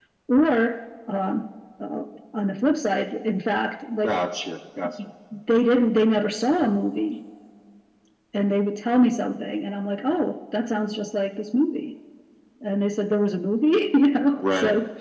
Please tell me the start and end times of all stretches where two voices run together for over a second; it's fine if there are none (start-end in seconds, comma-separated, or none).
none